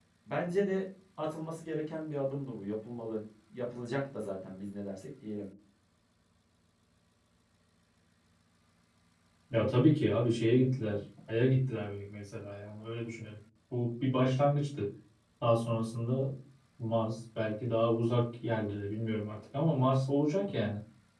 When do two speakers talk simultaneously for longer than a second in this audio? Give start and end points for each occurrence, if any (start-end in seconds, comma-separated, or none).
none